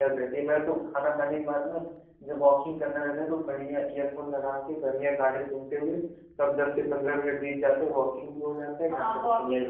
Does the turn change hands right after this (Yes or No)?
Yes